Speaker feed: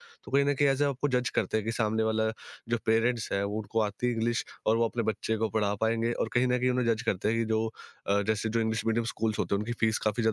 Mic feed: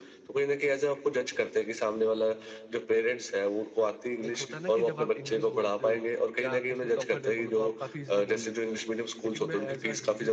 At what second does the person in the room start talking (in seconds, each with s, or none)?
4.2 s